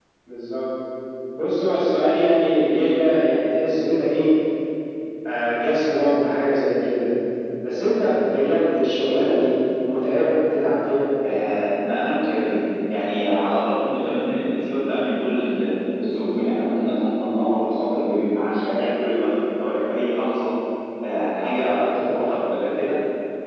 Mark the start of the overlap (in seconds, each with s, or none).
none